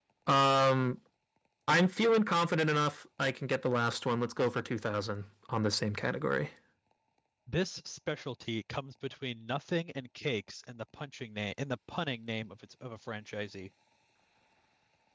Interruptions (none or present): none